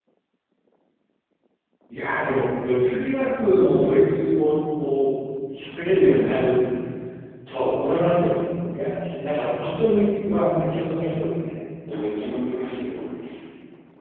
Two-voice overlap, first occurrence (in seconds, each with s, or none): none